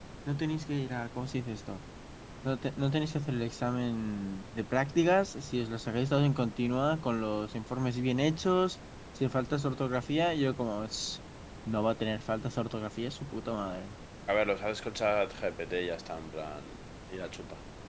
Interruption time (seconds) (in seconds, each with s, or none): none